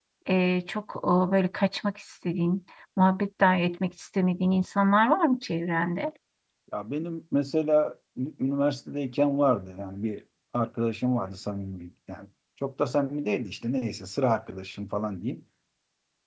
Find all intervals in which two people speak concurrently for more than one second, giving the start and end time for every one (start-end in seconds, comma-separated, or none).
none